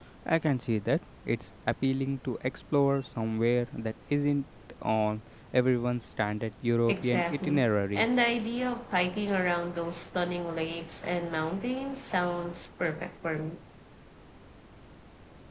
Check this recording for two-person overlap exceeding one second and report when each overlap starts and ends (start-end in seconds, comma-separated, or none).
6.9-8.1